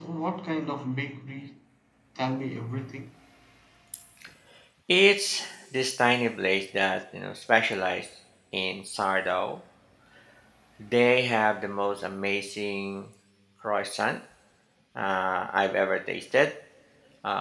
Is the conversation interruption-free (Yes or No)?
Yes